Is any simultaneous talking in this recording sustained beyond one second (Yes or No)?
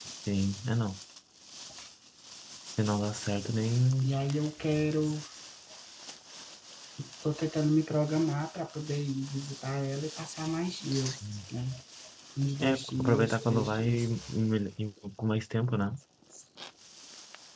Yes